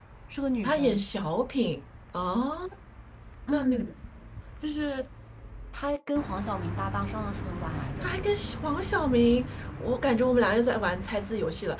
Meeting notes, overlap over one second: none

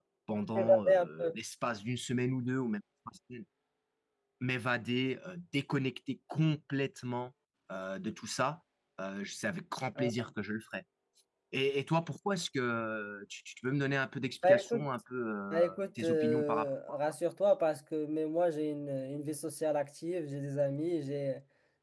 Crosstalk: present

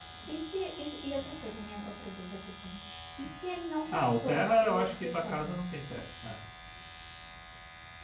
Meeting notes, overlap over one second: present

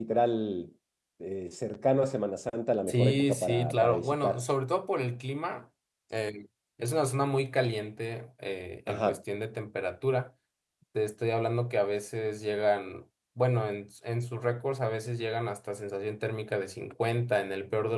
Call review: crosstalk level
present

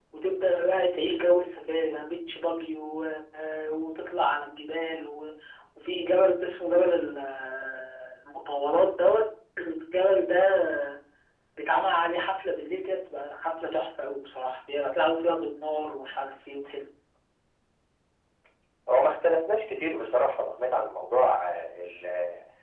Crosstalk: none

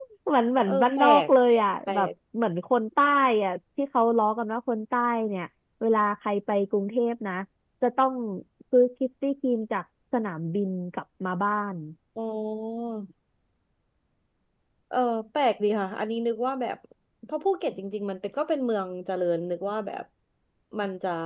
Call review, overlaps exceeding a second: present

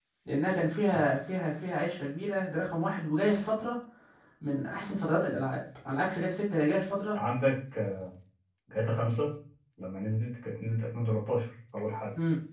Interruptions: none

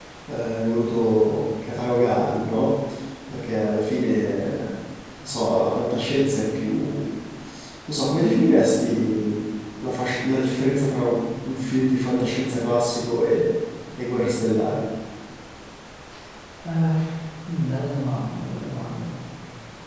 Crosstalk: none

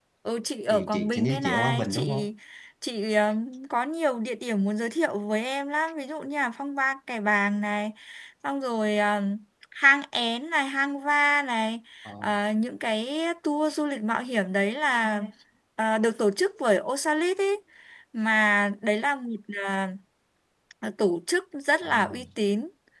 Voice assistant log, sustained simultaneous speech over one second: present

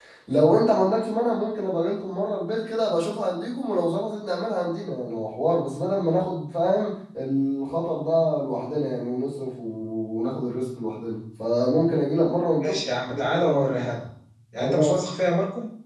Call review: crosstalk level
present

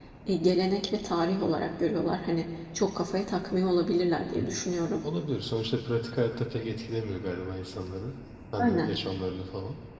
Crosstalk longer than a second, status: none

